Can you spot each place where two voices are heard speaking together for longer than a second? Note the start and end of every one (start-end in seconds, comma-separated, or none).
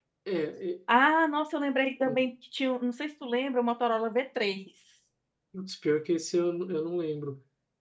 none